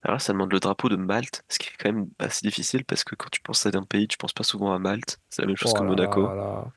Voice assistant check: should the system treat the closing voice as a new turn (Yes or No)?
Yes